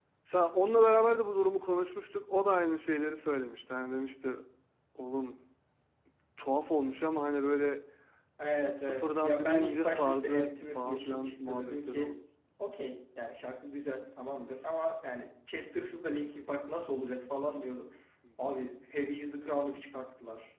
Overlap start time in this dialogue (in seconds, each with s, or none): 8.8 s